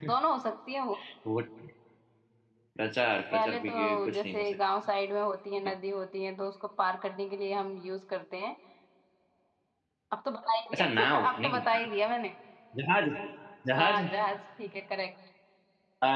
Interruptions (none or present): present